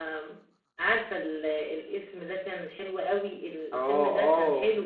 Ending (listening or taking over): taking over